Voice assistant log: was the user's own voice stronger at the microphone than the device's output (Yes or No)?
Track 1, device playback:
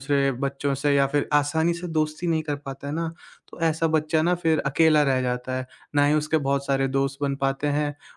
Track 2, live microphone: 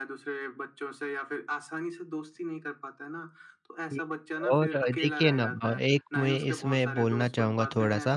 Yes